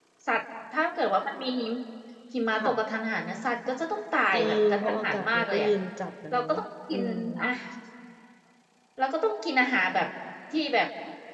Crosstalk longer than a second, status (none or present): present